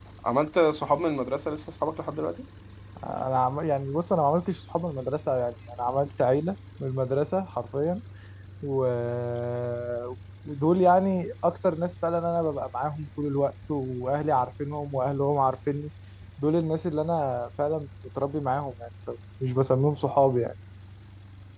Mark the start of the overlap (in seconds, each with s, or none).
none